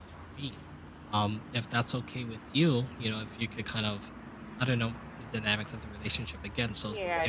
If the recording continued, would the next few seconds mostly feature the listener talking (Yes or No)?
Yes